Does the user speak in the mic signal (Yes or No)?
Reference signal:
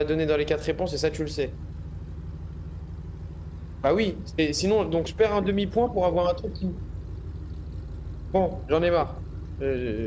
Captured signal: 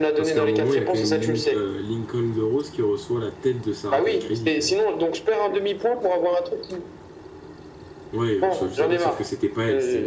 Yes